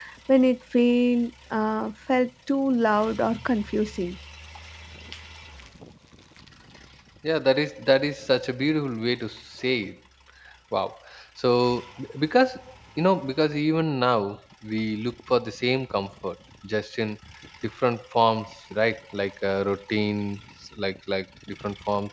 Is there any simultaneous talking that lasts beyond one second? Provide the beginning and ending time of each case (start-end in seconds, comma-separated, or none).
none